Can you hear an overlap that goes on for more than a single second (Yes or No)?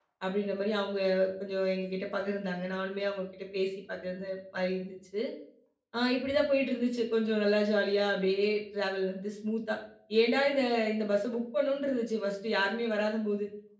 No